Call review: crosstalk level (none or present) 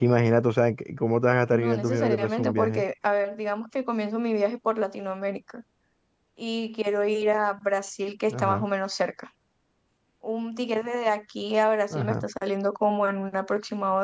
present